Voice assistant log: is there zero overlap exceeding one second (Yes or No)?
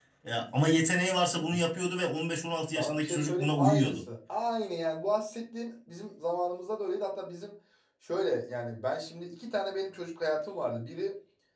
No